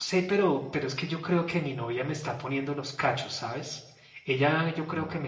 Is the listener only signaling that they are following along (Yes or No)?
Yes